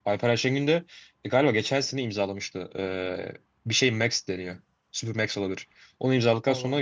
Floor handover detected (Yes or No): No